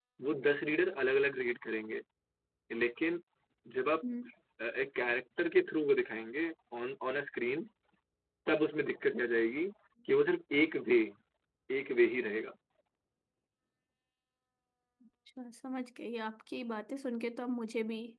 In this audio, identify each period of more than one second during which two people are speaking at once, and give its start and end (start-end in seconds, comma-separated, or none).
none